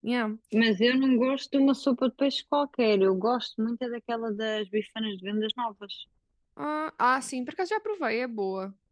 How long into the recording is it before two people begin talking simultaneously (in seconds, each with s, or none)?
none